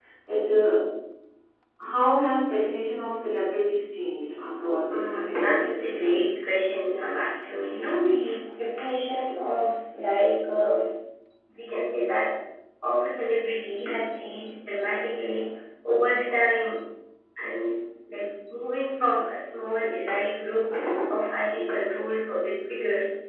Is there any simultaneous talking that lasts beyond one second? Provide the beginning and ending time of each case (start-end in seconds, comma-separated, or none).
4.9-6.4